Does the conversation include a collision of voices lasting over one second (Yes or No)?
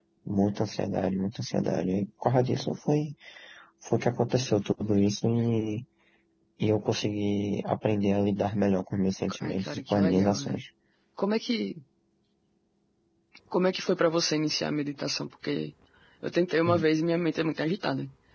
Yes